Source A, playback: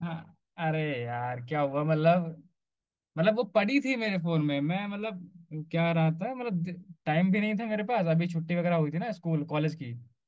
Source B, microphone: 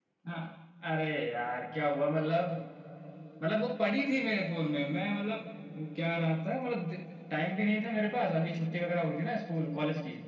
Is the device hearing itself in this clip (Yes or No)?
Yes